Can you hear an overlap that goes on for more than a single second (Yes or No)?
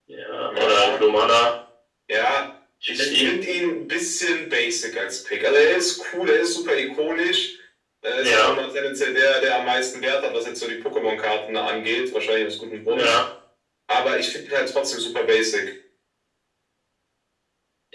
No